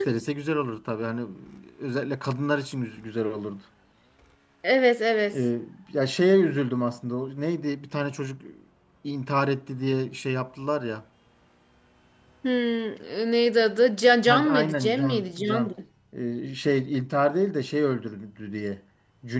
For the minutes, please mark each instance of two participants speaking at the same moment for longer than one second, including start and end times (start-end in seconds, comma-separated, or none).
14.3-15.7